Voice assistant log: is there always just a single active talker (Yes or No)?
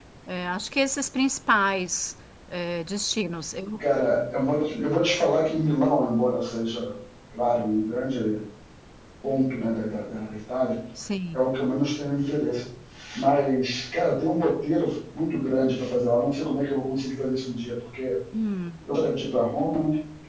Yes